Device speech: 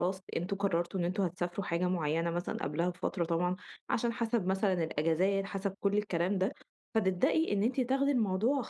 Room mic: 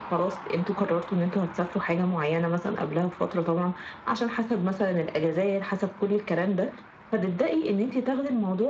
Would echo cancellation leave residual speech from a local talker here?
No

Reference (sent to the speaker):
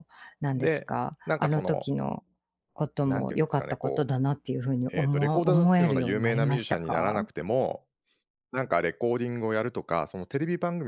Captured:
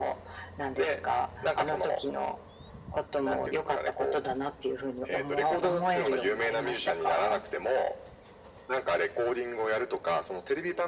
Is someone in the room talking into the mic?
No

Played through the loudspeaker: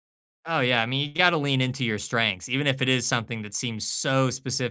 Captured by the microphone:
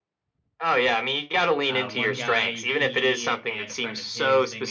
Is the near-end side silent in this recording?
No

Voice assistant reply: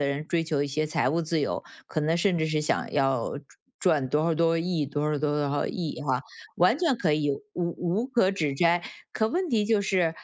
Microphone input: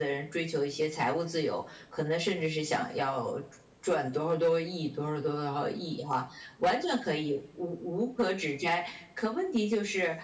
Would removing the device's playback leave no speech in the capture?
Yes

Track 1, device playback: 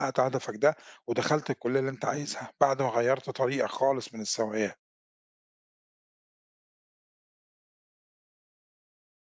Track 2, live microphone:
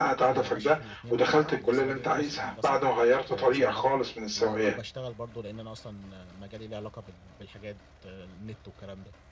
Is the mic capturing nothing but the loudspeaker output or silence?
No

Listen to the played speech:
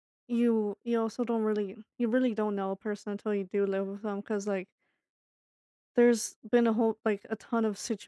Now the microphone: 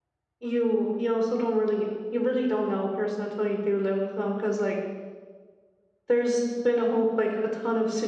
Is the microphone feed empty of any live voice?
Yes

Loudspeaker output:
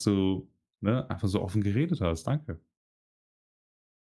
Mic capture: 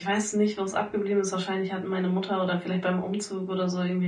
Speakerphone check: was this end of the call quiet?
No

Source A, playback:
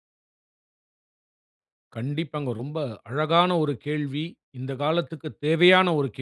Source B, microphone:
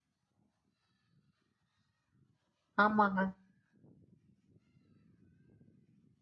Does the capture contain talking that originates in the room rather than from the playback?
Yes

